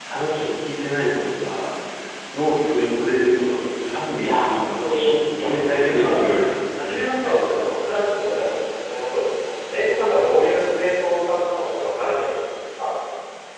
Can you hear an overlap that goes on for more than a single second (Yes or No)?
Yes